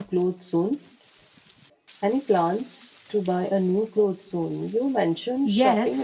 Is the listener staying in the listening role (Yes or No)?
No